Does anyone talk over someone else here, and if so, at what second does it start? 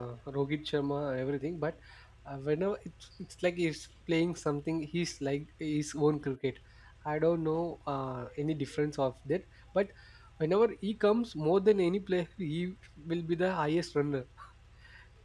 none

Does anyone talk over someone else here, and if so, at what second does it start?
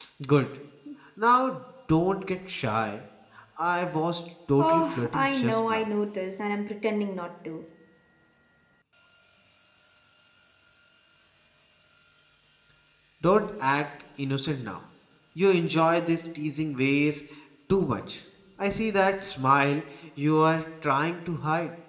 4.6 s

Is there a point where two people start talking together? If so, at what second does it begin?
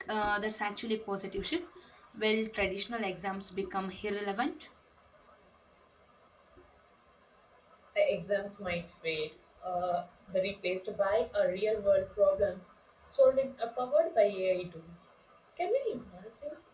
none

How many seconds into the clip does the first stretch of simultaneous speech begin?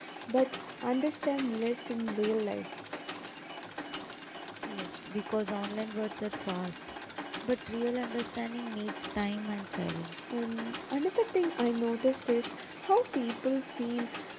none

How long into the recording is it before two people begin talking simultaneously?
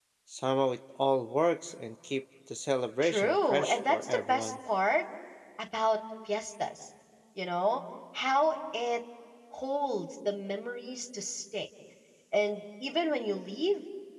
3.0 s

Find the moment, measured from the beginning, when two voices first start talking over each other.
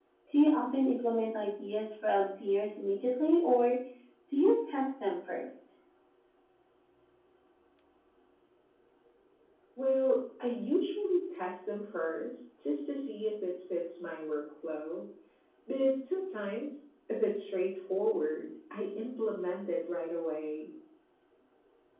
none

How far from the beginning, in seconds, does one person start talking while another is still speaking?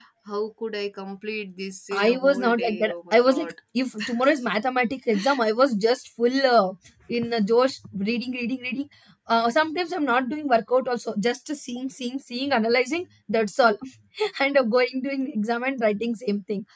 1.9 s

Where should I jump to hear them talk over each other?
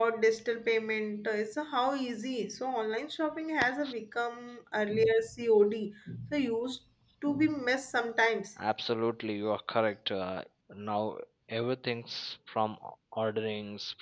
none

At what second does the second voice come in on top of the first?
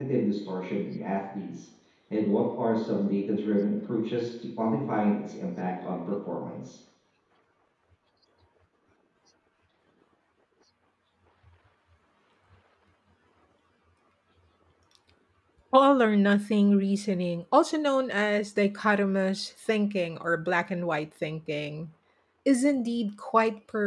none

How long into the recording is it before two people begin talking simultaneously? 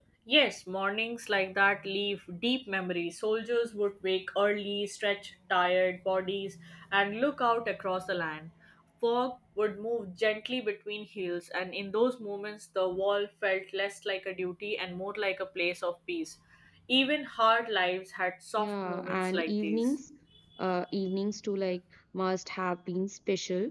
18.6 s

